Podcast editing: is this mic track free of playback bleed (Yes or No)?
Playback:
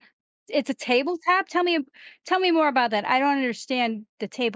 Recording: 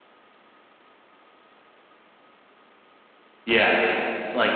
Yes